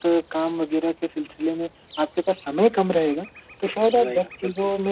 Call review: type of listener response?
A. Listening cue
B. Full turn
A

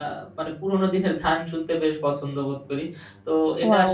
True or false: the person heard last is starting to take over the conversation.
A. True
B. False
B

